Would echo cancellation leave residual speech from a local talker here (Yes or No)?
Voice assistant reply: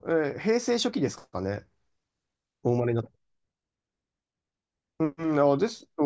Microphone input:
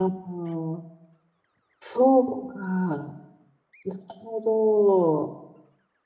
Yes